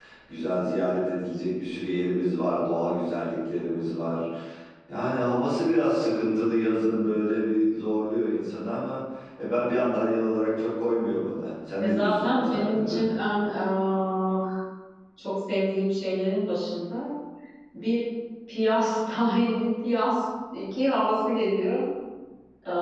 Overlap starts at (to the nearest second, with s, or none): 12 s